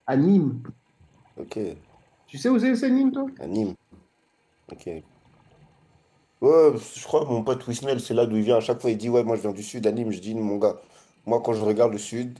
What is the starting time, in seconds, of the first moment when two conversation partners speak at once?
none

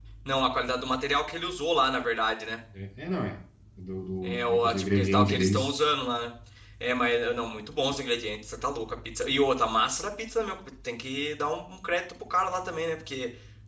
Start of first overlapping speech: 4.2 s

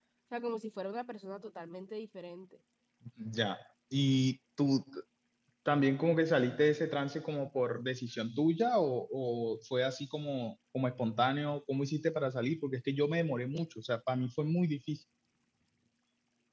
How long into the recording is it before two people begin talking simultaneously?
none

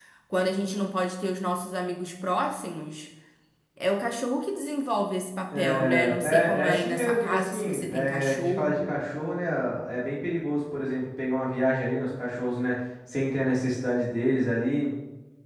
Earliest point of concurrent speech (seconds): 5.5 s

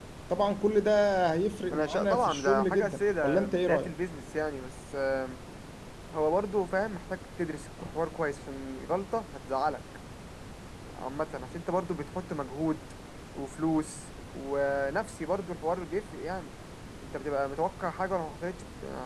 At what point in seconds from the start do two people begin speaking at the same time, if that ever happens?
1.7 s

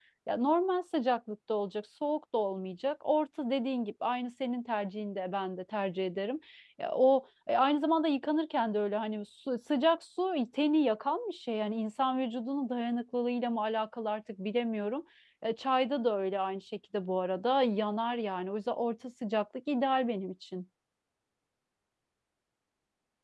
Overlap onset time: none

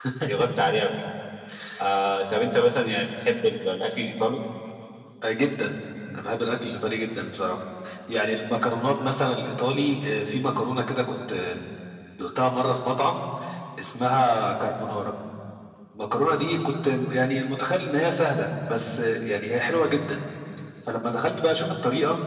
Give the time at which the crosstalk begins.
none

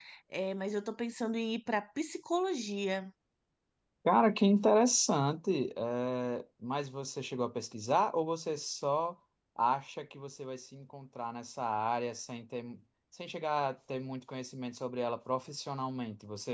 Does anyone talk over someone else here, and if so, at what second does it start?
none

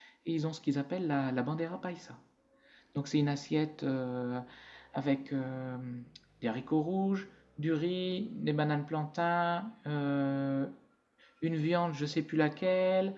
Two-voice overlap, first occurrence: none

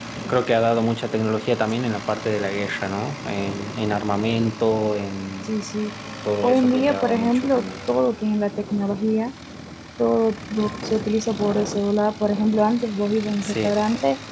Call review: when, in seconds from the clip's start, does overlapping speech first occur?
6.4 s

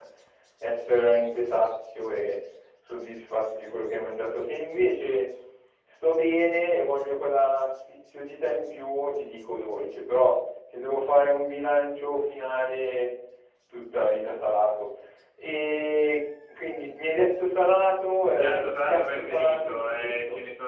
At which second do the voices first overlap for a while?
18.4 s

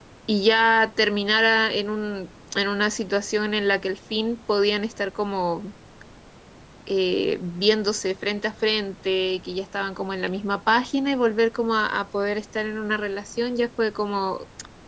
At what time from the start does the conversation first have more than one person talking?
none

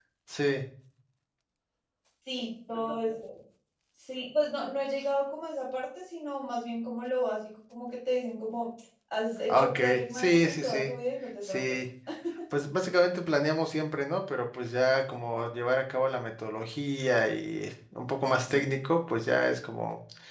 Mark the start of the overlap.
9.5 s

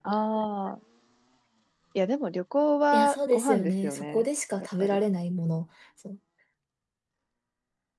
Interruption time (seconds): 2.9 s

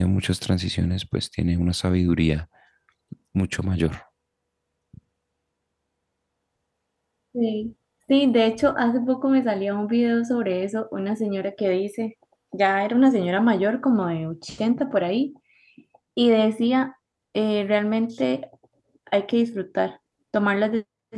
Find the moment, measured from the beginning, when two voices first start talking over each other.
none

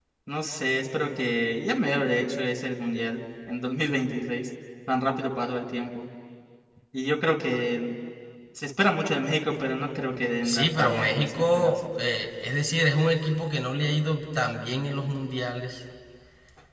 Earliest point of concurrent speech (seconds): 10.4 s

